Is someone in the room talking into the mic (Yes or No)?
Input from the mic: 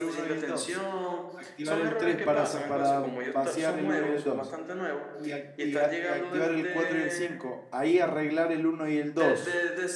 Yes